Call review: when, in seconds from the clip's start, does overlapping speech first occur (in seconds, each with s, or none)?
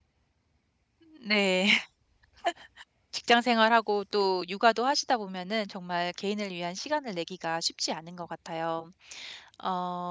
none